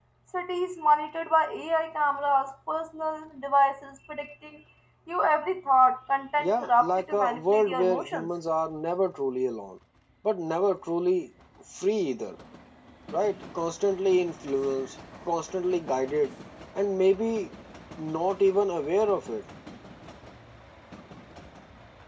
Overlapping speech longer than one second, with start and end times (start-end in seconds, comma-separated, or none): 6.4-8.3